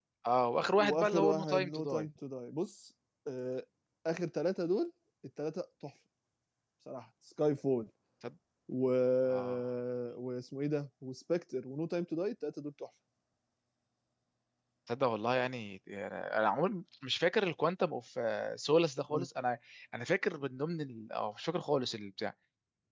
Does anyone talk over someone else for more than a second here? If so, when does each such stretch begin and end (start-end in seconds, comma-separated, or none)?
0.6-2.0